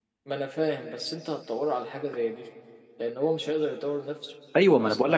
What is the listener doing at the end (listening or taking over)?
taking over